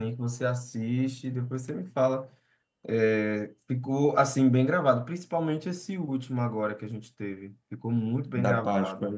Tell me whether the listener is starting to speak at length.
Yes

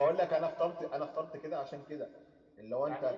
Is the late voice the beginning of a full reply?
Yes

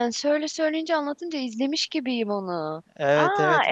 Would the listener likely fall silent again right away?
No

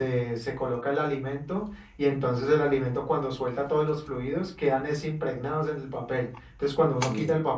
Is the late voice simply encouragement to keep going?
Yes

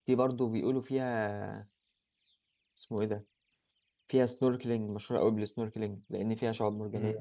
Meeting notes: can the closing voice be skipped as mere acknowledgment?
No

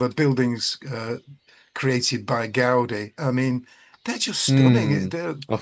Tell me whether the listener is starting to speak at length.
Yes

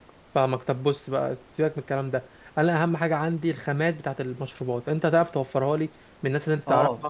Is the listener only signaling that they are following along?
No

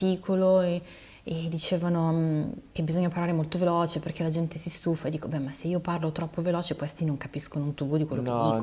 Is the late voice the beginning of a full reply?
Yes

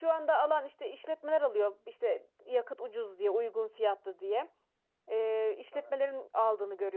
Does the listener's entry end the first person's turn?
No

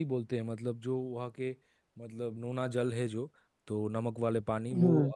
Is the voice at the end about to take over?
No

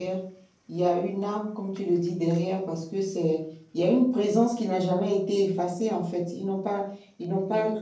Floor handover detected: No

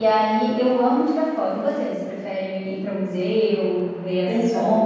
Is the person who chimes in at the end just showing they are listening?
No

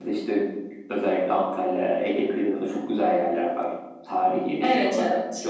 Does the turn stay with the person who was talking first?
No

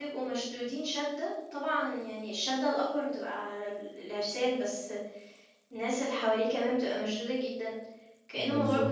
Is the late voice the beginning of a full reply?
No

